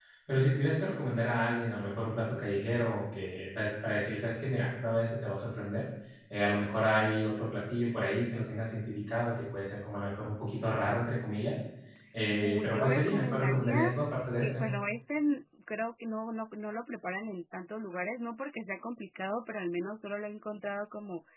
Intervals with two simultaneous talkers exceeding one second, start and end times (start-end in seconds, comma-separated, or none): 12.4-13.9